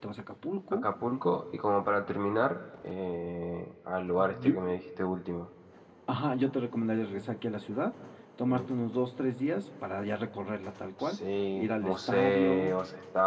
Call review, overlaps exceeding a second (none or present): present